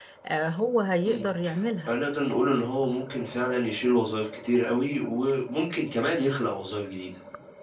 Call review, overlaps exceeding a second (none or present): none